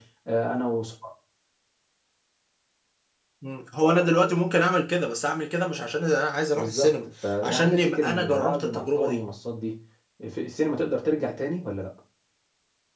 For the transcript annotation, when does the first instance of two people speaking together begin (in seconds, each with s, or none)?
6.5 s